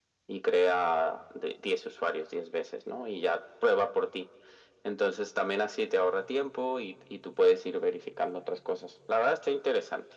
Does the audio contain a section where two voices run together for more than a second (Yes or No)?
No